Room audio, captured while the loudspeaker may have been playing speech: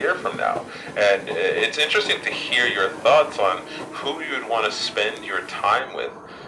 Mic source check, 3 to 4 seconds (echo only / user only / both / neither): echo only